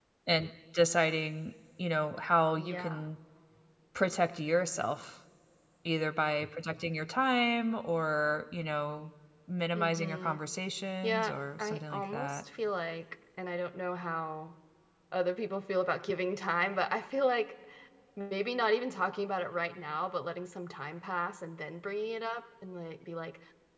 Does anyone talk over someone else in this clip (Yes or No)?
Yes